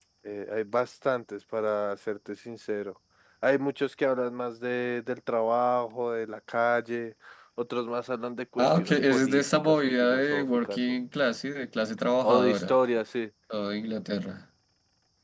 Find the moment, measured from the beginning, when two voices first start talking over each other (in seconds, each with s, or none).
8.6 s